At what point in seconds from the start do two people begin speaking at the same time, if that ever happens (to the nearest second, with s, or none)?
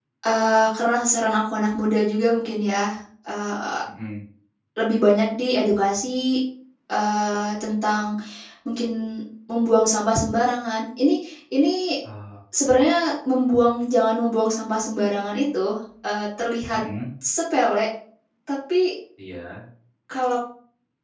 none